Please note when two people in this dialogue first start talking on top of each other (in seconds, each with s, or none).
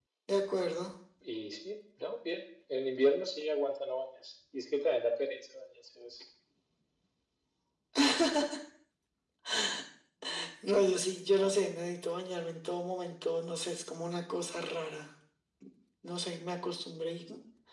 none